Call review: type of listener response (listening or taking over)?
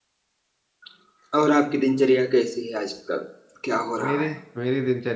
taking over